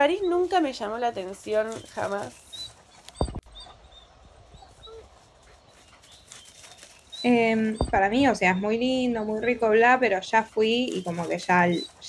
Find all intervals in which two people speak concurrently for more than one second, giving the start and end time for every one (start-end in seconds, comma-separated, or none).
none